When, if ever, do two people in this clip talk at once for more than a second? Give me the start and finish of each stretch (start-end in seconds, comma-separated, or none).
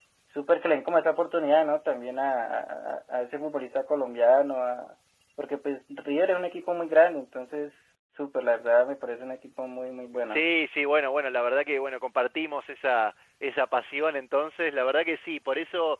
none